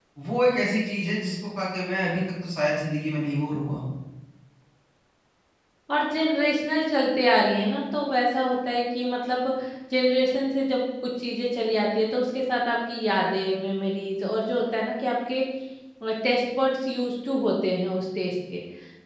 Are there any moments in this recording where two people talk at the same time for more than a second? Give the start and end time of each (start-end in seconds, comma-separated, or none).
none